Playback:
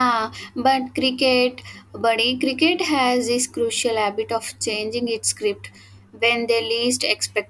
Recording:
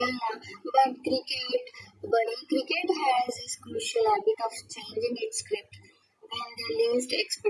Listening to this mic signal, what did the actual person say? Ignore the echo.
none

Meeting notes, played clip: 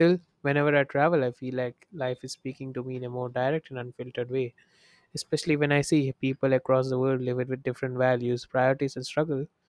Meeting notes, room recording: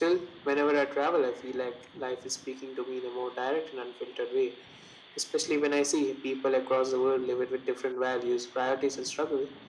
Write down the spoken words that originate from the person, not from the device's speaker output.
none

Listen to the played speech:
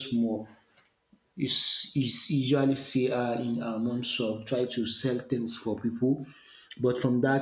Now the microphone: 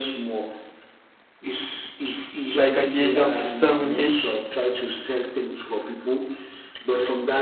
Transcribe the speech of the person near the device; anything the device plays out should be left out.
Like at the age of seven, eight,

